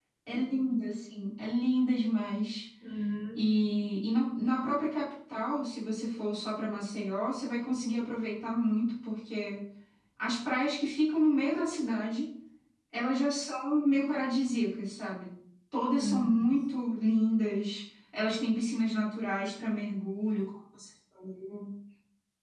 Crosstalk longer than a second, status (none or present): none